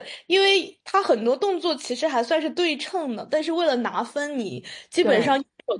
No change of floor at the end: Yes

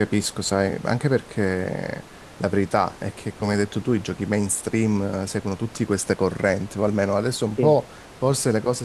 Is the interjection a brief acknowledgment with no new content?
Yes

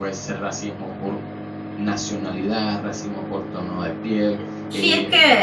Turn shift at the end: Yes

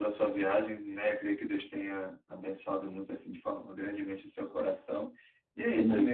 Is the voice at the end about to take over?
No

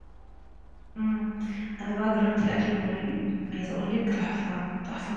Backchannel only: No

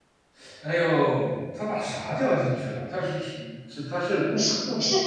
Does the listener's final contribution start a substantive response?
Yes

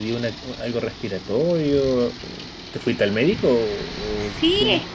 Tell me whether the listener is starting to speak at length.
Yes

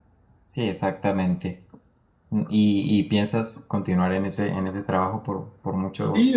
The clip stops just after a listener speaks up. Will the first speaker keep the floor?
No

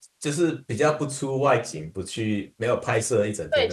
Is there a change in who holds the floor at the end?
Yes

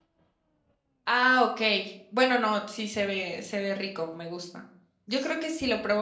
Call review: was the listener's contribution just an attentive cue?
Yes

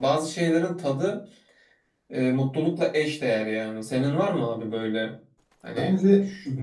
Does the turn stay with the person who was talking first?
No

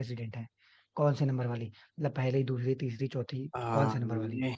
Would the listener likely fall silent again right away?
No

